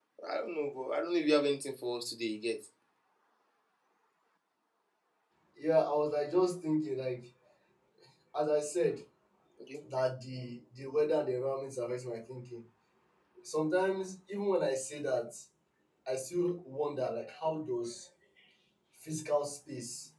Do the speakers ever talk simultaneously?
No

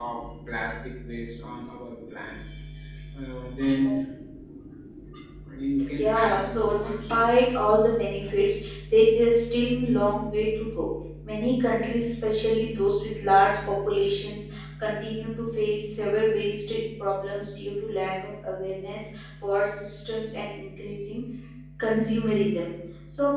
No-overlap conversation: No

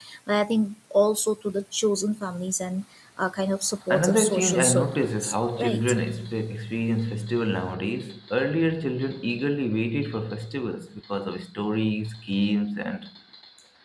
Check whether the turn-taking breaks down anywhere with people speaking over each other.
Yes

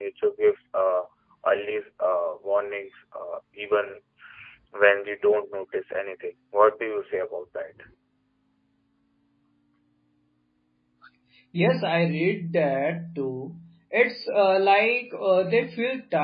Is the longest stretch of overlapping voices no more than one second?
Yes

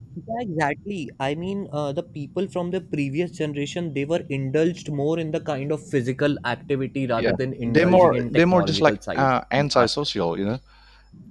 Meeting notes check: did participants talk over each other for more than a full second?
Yes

